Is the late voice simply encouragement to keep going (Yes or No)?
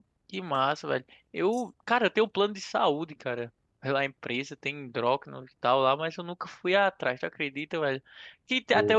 Yes